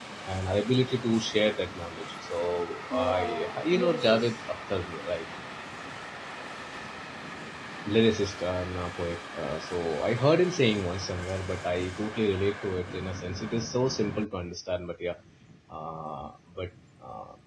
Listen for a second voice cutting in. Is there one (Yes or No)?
Yes